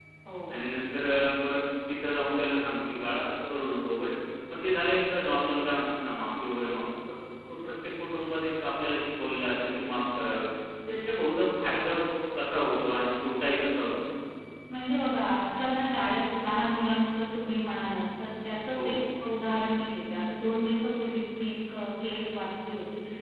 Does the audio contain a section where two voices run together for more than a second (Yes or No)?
No